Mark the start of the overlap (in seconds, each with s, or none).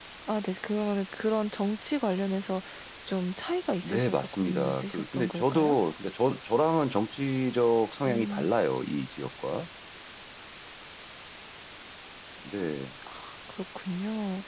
3.8 s